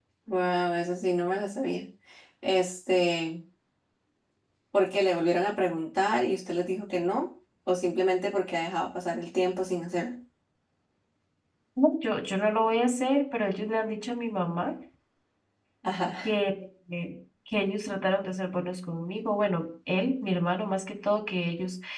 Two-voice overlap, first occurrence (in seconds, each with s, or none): none